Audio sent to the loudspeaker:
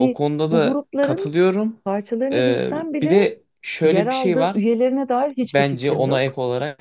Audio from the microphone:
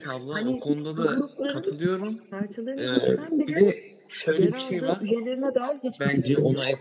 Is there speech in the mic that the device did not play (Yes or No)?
No